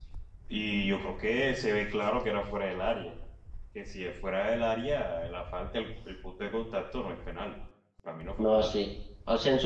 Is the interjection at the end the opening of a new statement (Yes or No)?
Yes